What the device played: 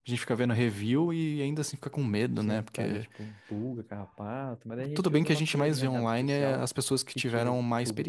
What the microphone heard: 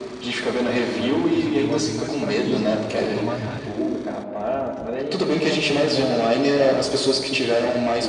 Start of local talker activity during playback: 1.0 s

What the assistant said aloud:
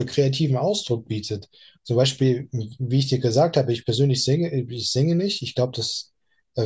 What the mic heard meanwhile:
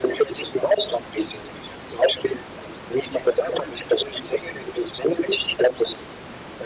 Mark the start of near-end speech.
none

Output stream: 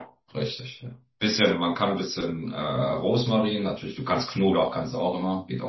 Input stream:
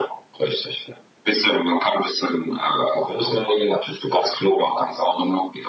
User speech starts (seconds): none

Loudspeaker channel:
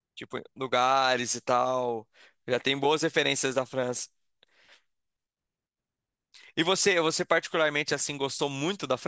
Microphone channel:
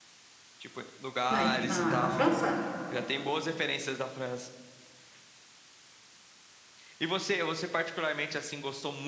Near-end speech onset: 1.3 s

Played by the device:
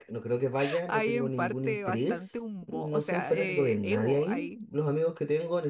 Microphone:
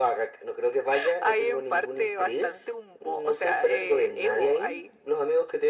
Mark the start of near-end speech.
none

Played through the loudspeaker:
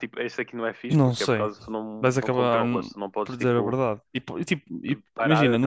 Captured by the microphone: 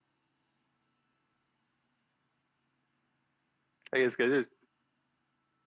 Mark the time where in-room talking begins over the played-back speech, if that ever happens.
3.9 s

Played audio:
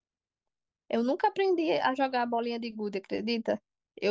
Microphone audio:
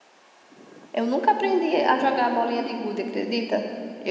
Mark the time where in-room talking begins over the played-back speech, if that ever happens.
none

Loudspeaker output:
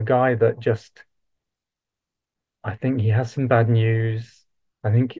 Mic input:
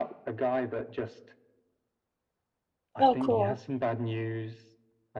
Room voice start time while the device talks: 3.0 s

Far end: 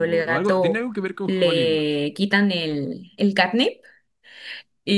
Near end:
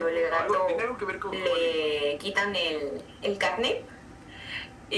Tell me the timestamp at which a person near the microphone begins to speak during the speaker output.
none

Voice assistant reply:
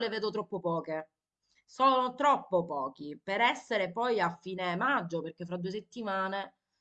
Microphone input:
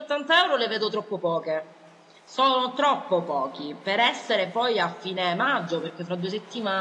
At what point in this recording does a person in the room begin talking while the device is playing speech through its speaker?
none

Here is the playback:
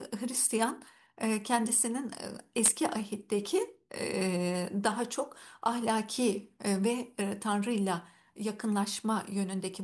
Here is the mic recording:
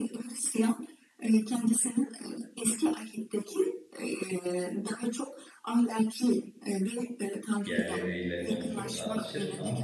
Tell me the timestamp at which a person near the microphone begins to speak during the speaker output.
7.6 s

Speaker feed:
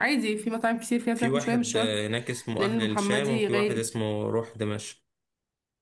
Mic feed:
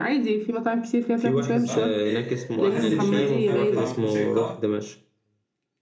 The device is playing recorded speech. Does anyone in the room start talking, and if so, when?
1.5 s

